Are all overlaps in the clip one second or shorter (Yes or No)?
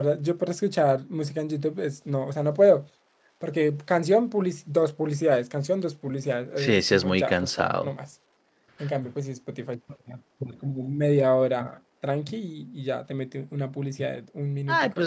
No